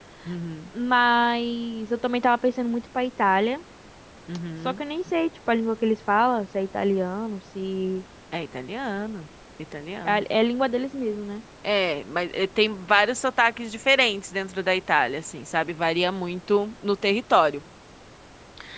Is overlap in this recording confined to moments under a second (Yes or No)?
Yes